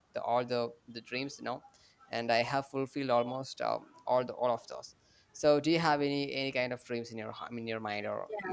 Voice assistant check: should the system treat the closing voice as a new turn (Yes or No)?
Yes